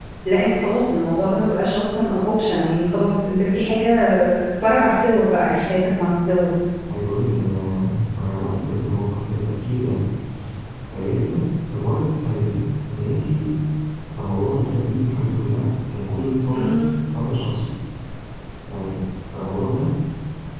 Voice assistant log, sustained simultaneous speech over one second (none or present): none